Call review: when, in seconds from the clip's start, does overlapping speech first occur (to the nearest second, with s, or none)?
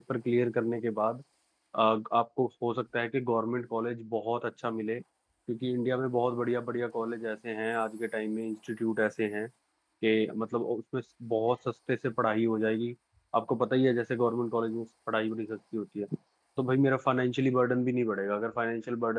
none